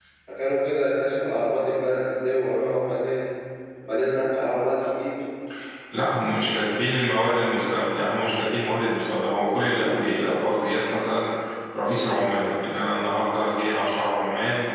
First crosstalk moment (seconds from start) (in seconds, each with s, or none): none